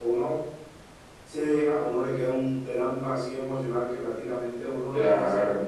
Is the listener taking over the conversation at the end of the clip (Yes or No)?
No